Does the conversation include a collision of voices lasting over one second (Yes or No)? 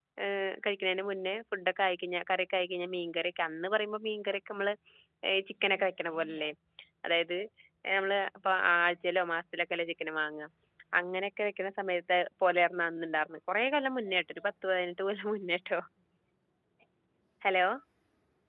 No